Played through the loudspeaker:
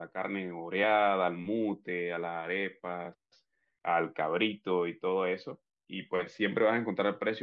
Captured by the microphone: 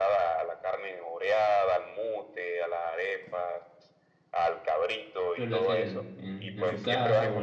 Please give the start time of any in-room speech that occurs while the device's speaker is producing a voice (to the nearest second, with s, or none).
5 s